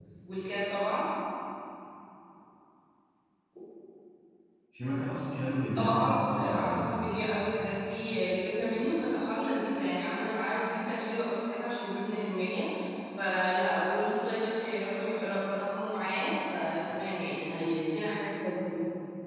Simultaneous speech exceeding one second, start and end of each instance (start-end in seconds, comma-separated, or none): 5.8-7.4